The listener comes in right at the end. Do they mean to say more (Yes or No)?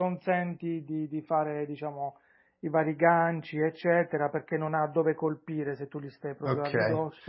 Yes